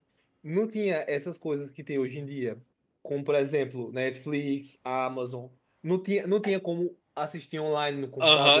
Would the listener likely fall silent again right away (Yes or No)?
No